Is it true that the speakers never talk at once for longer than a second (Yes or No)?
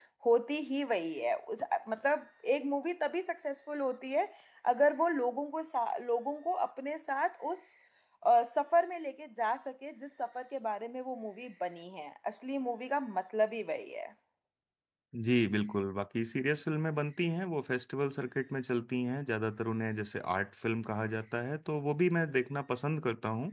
Yes